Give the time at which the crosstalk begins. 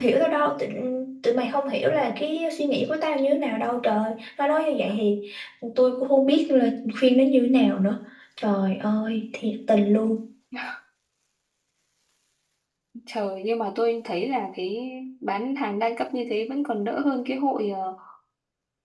none

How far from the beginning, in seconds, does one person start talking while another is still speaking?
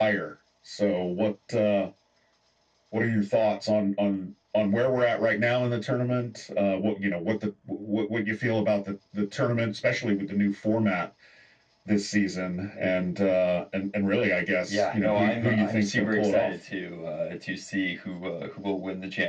14.7 s

